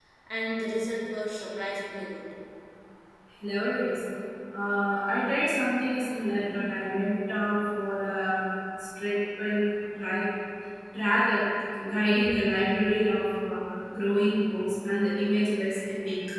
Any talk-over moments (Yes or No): No